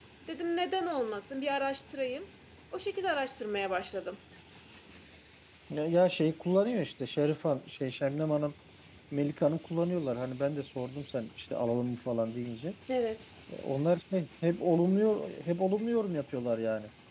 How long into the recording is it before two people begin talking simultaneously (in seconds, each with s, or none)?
none